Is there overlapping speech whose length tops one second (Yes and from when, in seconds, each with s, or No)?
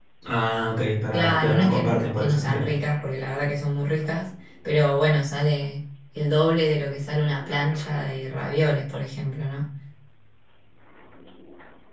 Yes, from 1.1 s